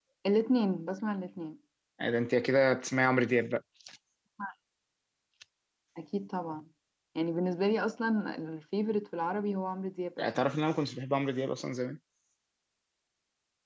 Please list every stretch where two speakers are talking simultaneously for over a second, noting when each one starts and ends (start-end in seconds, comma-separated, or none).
none